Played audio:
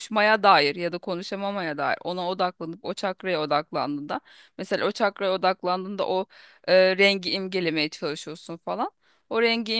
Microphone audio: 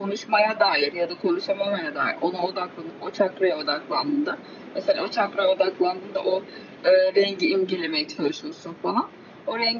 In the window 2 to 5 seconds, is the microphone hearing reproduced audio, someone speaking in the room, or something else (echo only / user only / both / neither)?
echo only